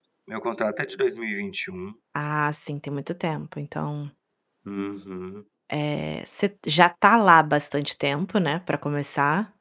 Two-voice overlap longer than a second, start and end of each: none

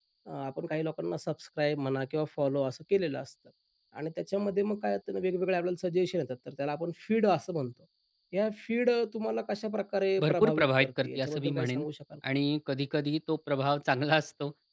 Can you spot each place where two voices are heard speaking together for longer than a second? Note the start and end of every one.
10.2-11.8

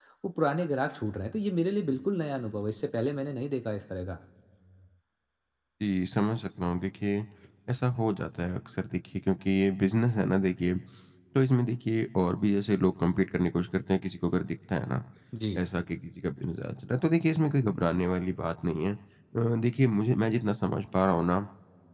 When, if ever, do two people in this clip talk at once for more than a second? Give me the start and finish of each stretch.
none

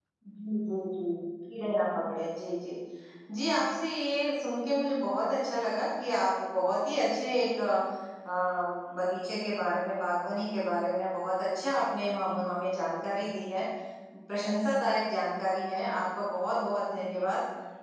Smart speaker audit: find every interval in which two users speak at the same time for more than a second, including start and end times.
none

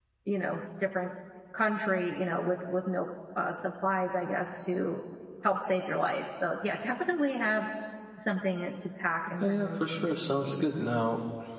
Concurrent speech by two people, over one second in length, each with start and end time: 9.4-10.6

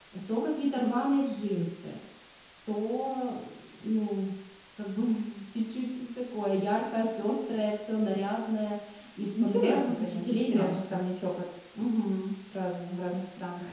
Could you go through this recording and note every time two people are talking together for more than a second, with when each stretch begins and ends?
9.4-10.8

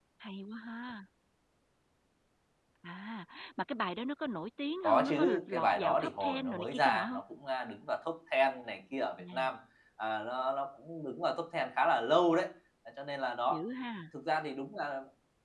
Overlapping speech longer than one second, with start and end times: 4.8-7.2

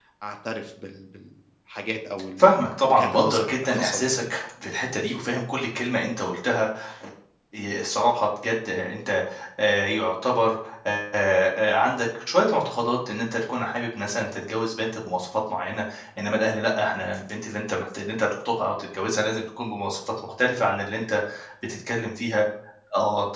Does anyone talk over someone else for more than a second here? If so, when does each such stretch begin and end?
2.9-4.2

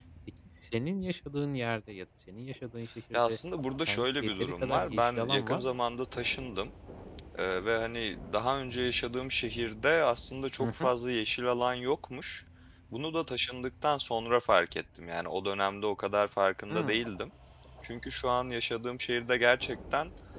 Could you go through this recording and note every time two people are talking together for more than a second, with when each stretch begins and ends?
3.8-5.8

